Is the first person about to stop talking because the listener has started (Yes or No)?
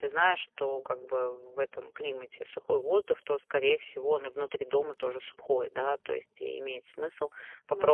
No